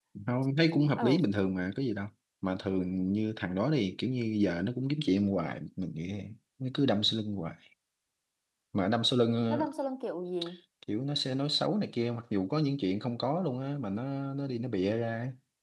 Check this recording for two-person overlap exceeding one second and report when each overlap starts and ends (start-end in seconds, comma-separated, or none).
none